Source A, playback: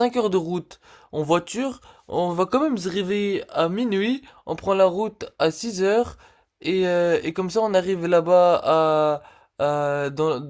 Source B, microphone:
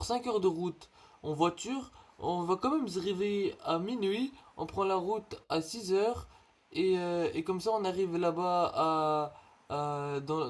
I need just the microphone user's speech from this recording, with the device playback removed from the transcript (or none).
none